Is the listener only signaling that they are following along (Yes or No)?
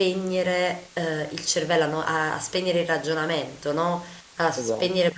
Yes